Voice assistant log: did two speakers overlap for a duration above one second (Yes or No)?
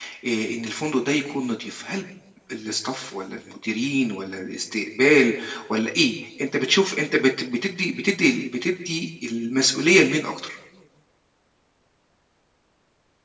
No